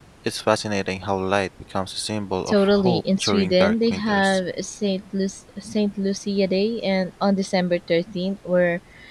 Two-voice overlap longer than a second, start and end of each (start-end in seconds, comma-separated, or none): 2.5-4.4